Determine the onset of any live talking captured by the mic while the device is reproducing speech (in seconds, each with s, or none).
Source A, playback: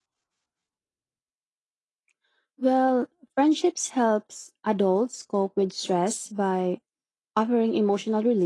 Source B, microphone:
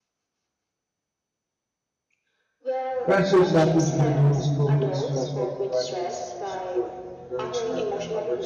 3.0 s